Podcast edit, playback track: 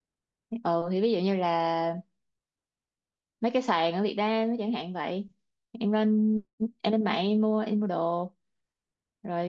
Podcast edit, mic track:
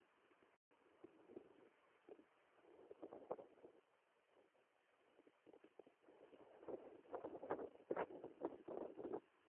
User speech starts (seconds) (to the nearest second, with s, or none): none